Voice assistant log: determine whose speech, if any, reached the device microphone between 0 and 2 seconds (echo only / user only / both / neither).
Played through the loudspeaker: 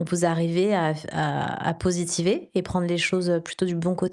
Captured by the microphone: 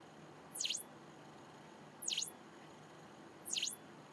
neither